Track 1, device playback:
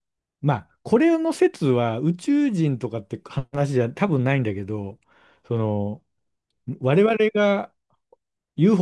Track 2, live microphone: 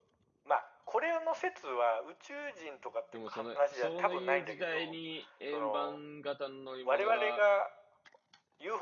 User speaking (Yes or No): Yes